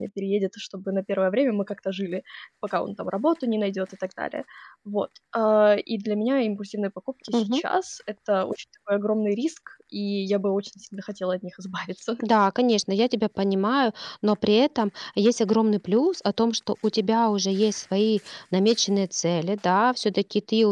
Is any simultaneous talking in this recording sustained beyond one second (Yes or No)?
No